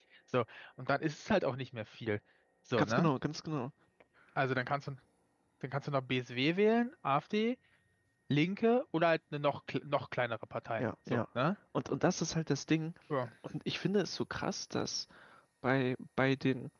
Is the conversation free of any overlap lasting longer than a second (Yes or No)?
Yes